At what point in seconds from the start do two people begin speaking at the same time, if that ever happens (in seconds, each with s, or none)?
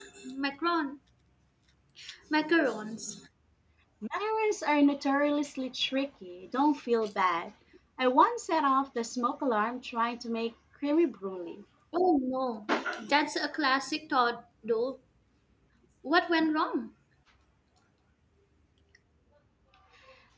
none